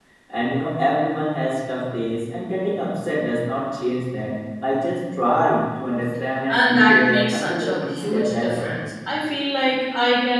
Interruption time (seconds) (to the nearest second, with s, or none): 6 s